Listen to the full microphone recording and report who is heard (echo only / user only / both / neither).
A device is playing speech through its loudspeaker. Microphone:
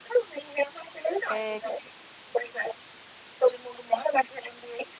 both